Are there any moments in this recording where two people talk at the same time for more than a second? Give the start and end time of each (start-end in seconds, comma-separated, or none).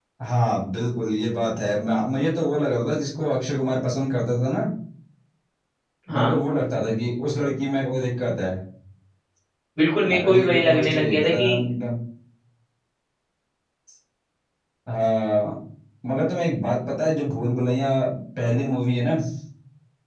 10.1-11.4